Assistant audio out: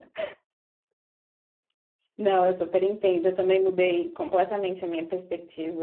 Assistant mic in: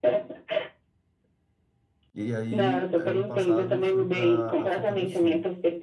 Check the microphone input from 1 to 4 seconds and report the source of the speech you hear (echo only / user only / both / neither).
both